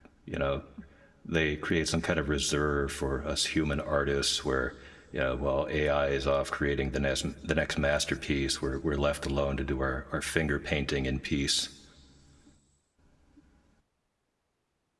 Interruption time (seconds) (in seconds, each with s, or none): none